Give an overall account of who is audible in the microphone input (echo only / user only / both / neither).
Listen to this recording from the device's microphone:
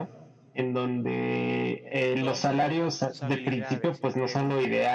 both